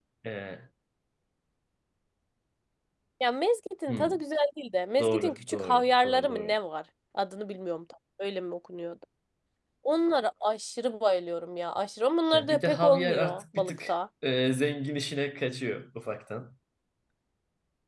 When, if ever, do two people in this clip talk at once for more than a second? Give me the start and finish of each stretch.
5.0-6.5, 12.3-13.9

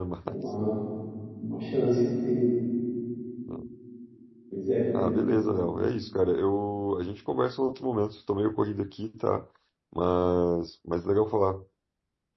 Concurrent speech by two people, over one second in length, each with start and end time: none

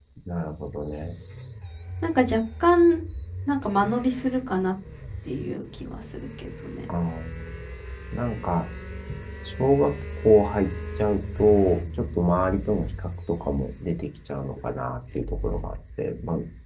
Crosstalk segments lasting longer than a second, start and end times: none

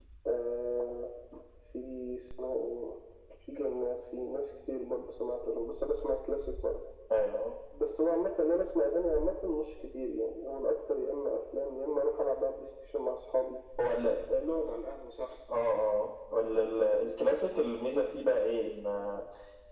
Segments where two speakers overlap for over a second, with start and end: none

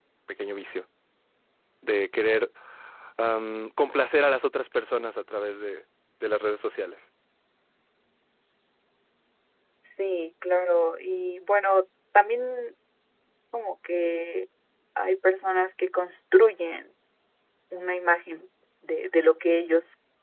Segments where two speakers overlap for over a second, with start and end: none

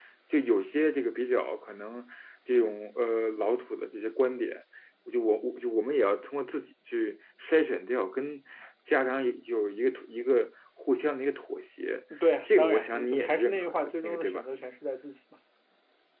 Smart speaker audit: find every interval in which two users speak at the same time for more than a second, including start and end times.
12.4-14.4

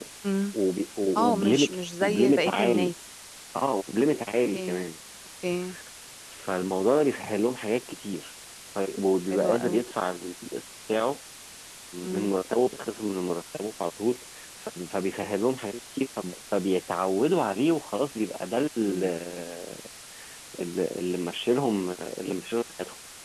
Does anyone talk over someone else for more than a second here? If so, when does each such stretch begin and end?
1.2-2.9

